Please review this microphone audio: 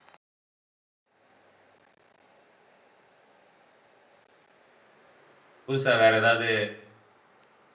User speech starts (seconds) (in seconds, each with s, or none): 5.7 s